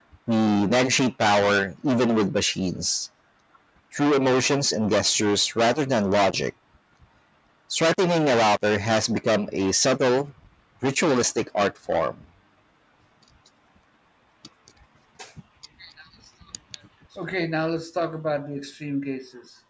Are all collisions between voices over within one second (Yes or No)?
Yes